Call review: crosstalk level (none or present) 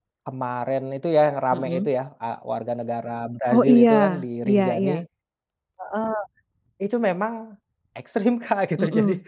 present